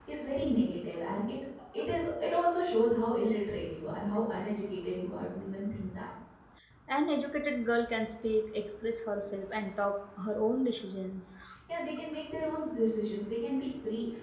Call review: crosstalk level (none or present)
none